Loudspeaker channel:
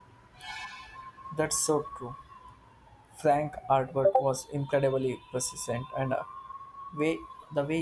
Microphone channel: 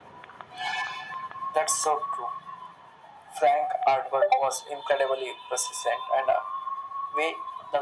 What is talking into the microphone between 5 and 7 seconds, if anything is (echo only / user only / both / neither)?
echo only